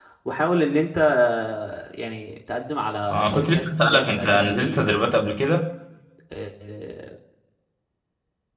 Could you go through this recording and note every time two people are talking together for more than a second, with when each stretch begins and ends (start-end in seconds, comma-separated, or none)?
3.0-4.8